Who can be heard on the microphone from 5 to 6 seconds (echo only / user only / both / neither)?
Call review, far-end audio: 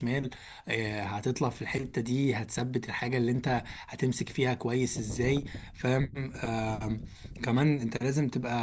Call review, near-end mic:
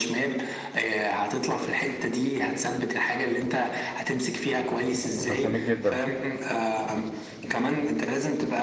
both